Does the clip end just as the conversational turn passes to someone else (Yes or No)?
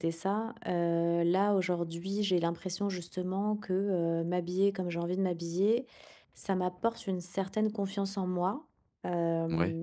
No